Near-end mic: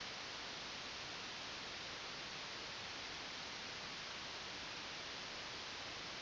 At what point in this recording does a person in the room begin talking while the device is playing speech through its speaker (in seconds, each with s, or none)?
none